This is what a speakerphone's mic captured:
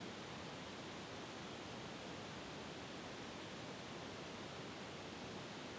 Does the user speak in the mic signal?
No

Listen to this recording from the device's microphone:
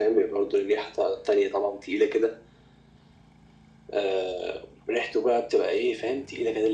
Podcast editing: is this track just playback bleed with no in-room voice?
Yes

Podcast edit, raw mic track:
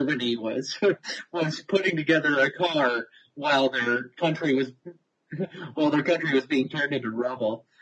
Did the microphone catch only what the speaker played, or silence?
Yes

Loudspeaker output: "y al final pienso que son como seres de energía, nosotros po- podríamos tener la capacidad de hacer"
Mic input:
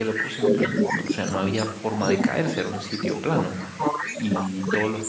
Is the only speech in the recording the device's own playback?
No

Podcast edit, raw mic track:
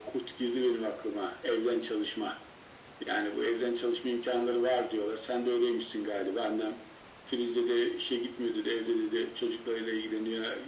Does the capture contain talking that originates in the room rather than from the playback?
No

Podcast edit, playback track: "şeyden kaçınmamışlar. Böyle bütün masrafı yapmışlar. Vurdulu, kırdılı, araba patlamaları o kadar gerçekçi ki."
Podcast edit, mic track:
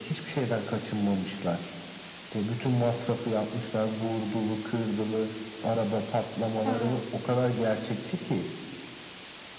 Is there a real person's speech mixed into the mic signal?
Yes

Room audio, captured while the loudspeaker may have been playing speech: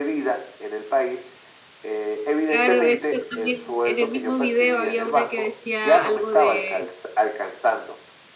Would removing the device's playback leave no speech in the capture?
No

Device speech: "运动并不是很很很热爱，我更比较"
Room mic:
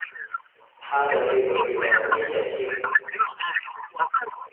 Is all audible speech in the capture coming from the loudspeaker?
No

